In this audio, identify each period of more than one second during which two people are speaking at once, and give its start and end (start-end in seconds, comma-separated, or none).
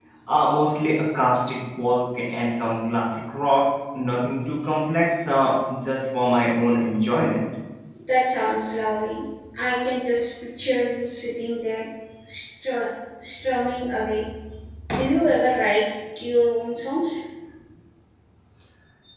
none